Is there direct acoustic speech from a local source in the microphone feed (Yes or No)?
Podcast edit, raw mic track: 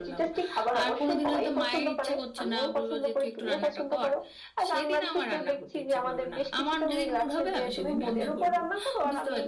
No